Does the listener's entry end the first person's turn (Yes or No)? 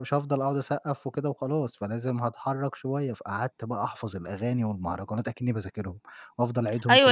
Yes